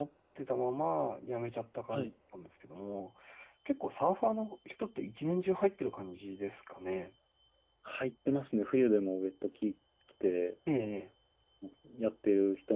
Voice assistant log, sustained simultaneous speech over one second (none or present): none